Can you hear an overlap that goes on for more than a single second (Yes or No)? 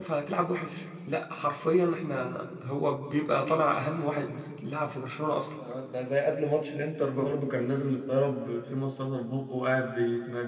No